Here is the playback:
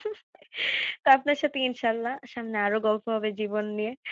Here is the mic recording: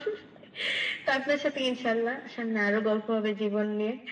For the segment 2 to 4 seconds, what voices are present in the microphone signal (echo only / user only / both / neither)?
echo only